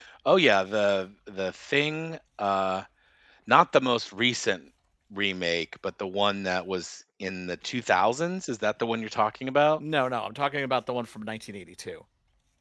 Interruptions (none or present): none